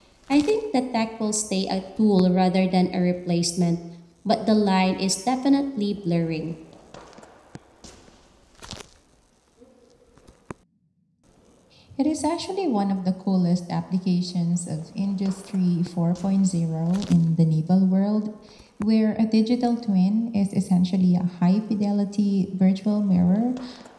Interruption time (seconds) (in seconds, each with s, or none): none